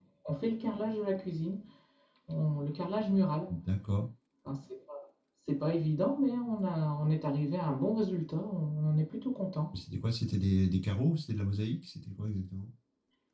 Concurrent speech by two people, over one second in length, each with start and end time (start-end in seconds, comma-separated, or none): none